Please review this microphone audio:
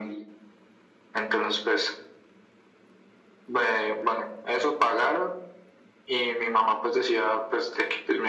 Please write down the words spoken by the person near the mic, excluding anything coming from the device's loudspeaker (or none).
none